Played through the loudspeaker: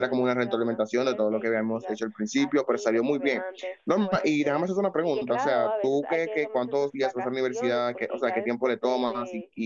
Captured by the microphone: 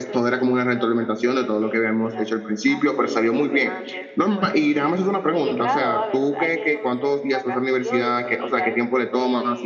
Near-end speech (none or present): none